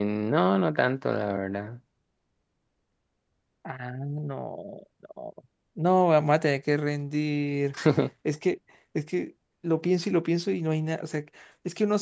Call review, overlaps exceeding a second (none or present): none